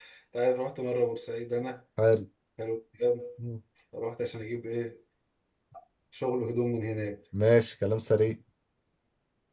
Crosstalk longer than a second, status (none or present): none